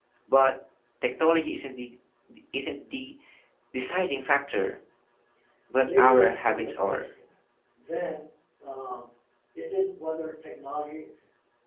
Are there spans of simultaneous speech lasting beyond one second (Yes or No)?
Yes